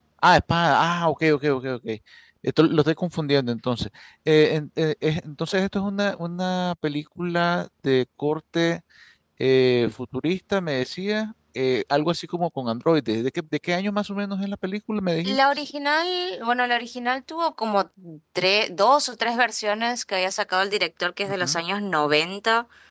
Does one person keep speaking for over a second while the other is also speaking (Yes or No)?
No